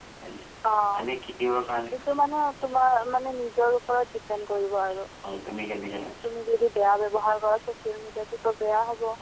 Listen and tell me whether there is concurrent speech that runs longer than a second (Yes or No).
No